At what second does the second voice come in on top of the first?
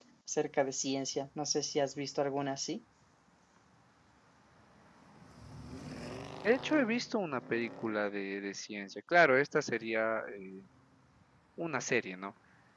none

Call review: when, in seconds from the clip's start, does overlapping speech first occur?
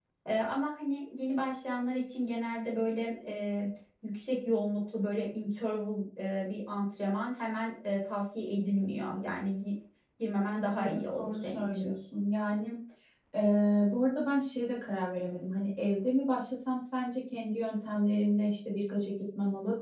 10.7 s

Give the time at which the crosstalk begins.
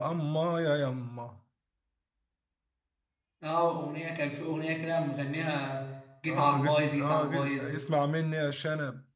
6.3 s

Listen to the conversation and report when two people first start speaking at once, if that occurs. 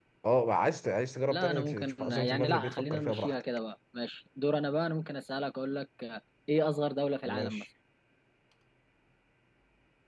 1.3 s

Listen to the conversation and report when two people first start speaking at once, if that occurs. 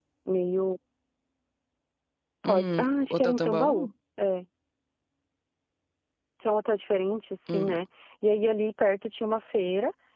2.4 s

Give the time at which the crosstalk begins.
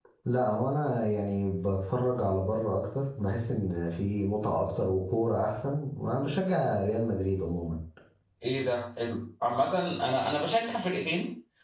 none

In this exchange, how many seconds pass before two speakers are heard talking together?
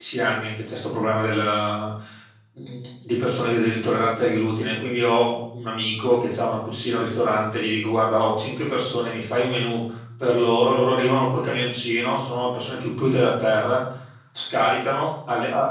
none

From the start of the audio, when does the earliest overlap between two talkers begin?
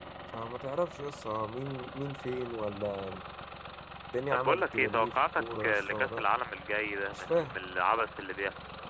4.3 s

